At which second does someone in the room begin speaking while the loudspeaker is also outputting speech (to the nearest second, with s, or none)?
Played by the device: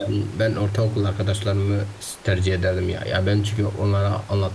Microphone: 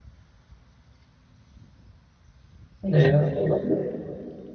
3 s